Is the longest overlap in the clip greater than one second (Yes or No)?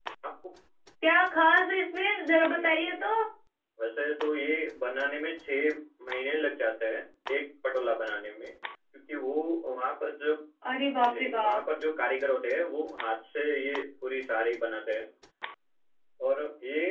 No